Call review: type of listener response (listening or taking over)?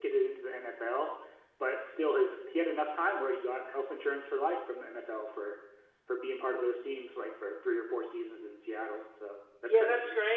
taking over